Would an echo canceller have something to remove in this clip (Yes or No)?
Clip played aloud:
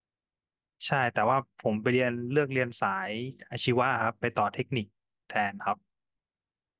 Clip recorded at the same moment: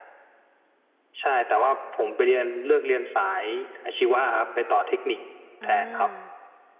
Yes